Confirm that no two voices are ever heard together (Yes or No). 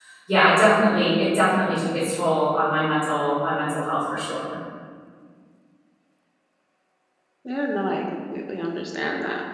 Yes